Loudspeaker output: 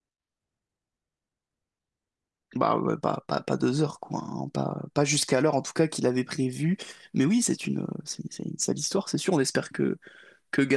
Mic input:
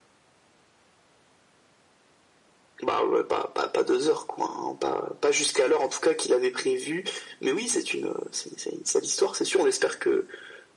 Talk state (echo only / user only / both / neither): echo only